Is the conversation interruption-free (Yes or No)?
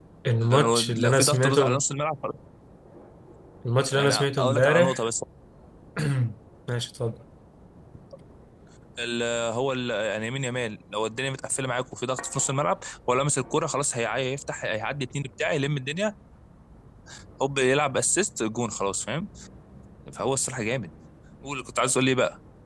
No